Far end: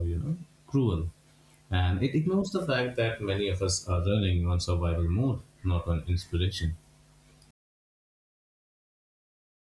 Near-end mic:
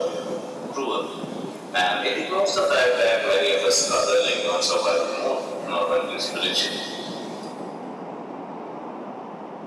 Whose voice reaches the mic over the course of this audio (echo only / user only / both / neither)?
echo only